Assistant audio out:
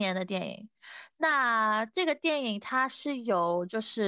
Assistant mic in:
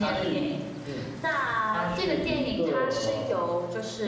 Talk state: both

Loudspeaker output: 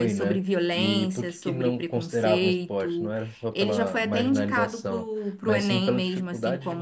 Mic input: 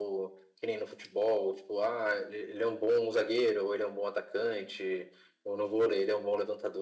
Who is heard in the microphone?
user only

